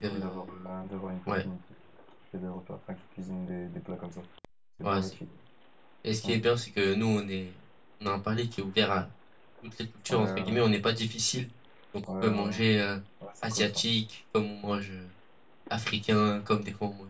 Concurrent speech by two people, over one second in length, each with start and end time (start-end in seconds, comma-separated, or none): none